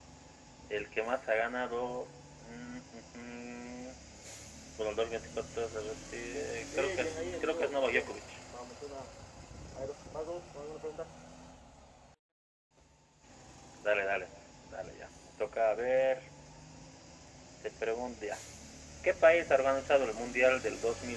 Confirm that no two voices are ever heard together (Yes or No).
No